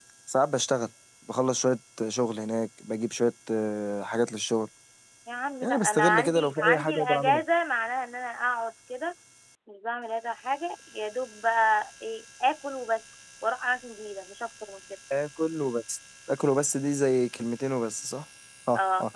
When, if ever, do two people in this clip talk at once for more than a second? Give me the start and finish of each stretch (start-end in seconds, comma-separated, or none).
5.6-7.4